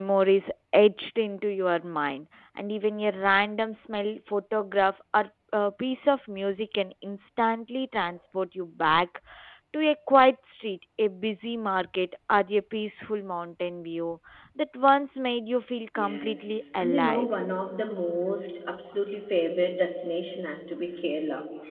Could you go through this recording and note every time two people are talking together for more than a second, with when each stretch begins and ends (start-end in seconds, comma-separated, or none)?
15.9-17.3